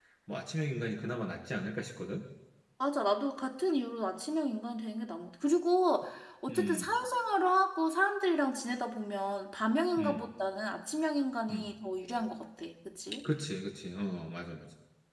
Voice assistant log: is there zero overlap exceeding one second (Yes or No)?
Yes